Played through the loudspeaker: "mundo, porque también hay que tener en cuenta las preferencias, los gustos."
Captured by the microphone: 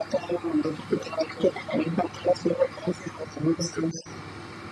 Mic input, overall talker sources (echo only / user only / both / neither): echo only